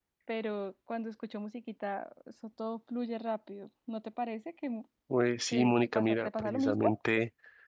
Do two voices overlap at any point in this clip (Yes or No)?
Yes